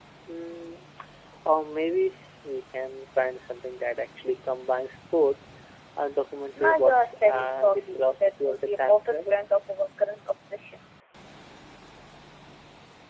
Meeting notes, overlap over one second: present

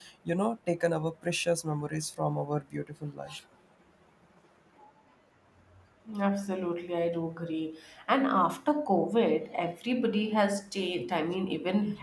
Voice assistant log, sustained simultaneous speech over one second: none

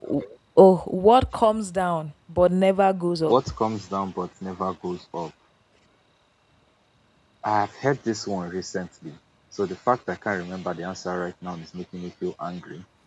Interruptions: none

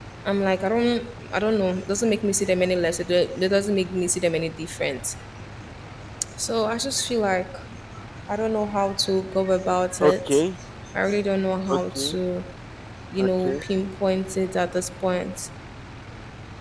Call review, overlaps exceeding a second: none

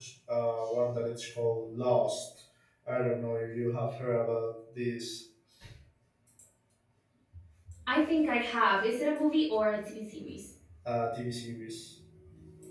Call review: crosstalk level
none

